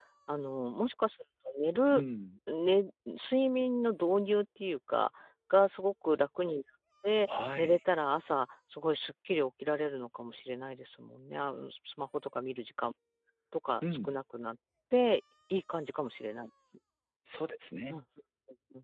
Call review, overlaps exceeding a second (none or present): none